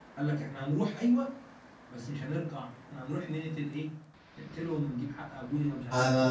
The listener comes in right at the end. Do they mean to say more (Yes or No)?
Yes